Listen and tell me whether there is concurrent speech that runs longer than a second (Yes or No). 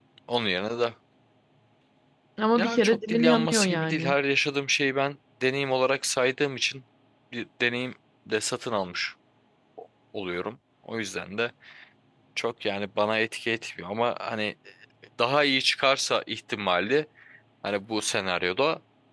Yes